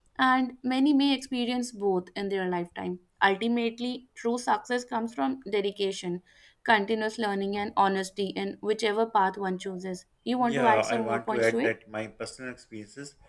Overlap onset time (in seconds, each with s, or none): 10.4 s